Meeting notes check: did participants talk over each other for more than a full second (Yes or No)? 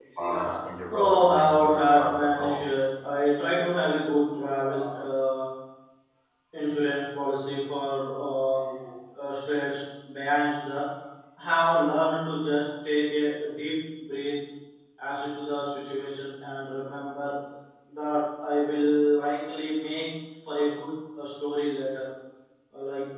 Yes